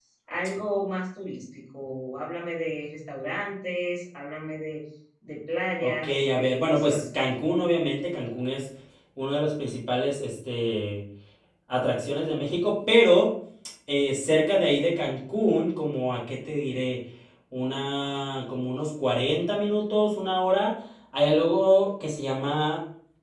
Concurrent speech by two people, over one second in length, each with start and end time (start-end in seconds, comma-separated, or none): 5.8-7.1